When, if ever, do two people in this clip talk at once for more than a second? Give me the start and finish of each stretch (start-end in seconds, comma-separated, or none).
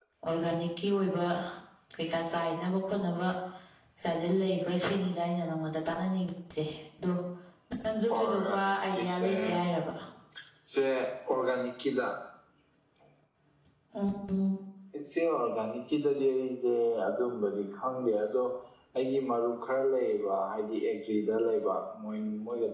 8.1-9.3